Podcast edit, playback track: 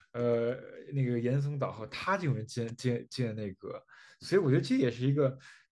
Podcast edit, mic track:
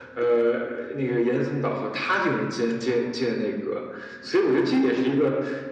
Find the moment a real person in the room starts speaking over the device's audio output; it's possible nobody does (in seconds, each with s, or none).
none